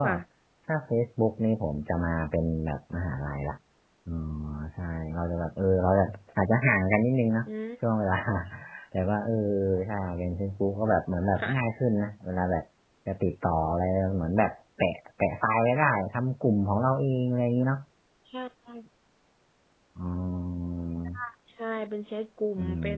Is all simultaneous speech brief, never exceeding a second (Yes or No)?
Yes